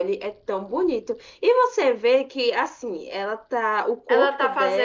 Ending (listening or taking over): taking over